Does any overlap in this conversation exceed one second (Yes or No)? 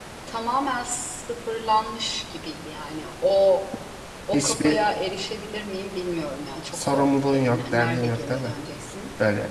Yes